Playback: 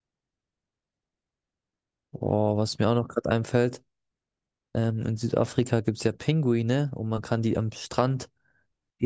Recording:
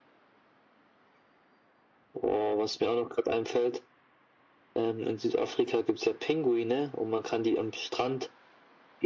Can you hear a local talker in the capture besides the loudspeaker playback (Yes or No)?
No